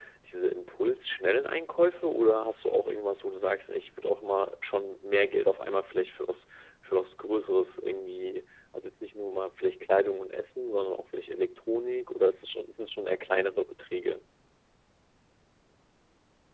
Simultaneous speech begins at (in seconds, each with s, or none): none